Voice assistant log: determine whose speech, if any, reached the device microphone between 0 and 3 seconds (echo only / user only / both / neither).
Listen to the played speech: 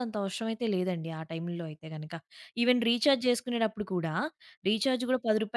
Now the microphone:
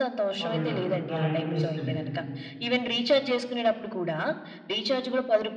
both